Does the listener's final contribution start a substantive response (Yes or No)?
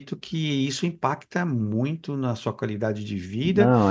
No